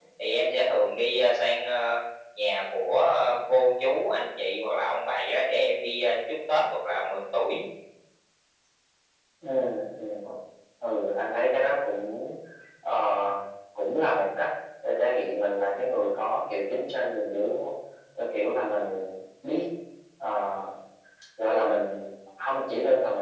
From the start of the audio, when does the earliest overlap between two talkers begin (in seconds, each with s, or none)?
none